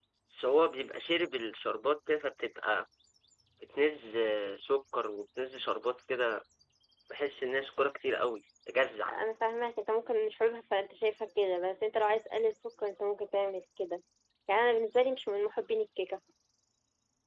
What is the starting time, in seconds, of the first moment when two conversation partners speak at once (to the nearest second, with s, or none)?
none